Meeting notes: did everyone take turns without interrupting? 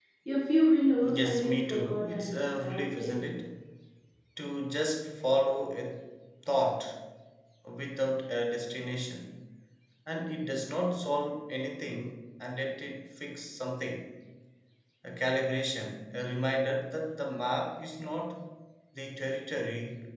No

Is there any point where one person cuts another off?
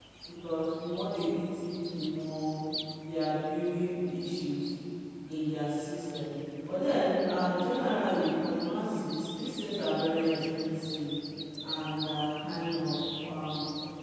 No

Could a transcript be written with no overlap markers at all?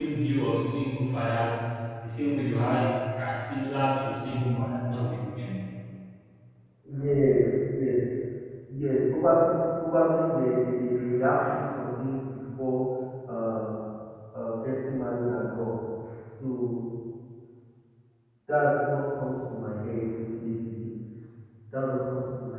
Yes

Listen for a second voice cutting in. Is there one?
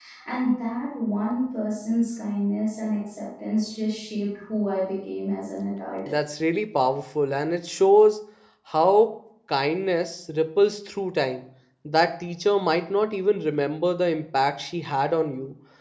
No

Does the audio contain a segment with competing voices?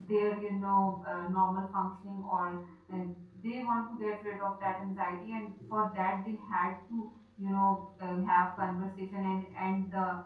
No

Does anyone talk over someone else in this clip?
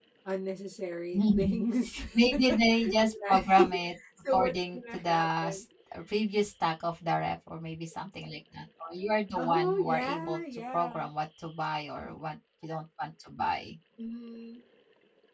Yes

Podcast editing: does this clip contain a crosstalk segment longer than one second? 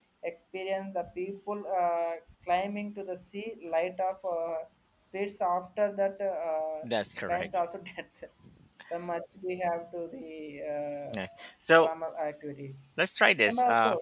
No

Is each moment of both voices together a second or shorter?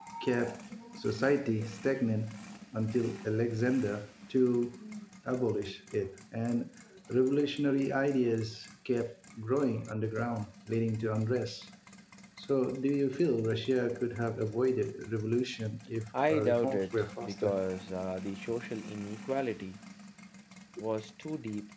No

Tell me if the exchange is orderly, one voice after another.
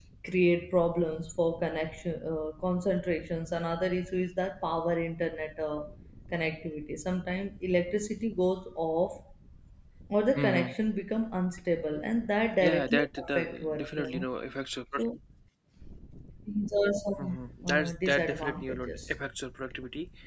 No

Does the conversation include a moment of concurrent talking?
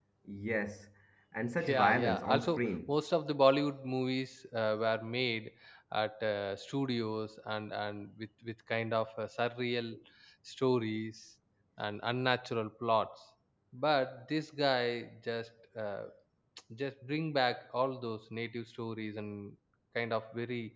Yes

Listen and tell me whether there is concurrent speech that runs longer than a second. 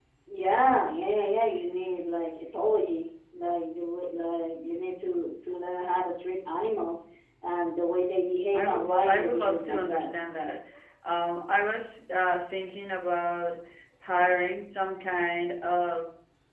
Yes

